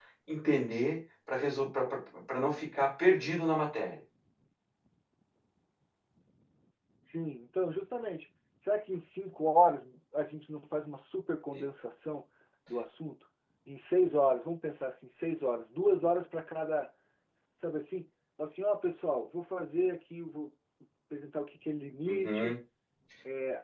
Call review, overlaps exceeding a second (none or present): none